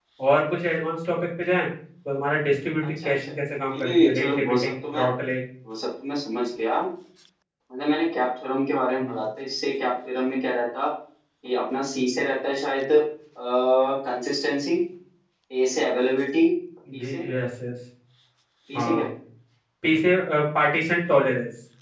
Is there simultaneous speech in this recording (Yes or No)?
Yes